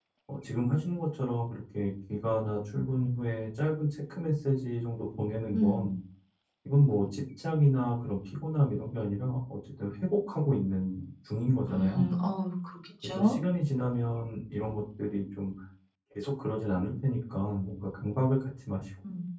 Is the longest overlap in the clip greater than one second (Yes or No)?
No